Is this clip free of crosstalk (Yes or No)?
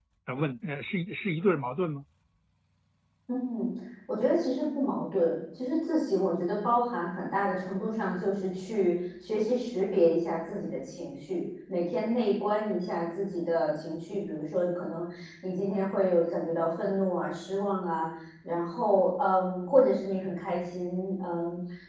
Yes